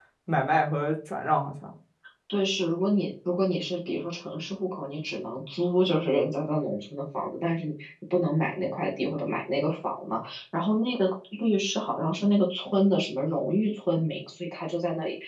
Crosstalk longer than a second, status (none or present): none